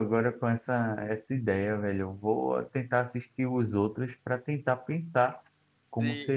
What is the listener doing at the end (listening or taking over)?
taking over